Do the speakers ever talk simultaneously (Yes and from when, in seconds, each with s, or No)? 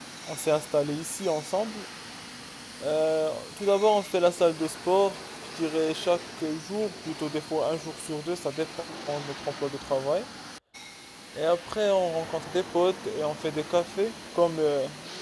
No